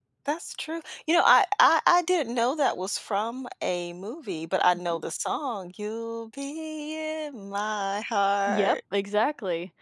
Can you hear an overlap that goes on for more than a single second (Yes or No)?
No